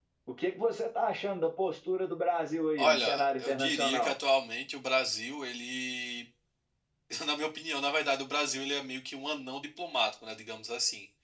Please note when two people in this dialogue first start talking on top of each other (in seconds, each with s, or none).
2.8 s